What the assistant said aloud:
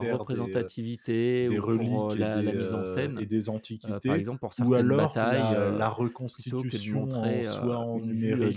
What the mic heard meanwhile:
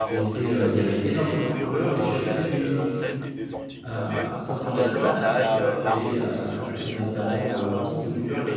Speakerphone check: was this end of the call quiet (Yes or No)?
No